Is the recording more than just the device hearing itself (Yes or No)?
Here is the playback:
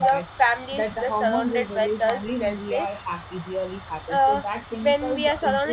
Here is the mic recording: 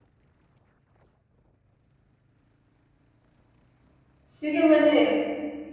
Yes